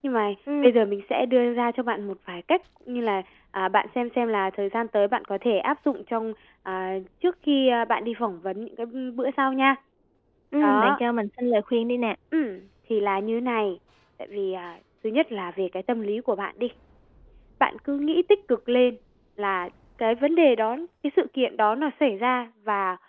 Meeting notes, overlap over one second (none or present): none